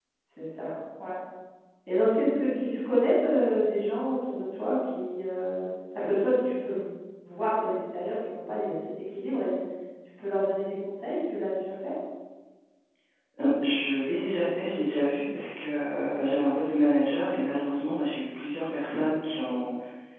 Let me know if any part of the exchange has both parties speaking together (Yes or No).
No